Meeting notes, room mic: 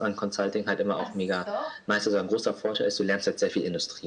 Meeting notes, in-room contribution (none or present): present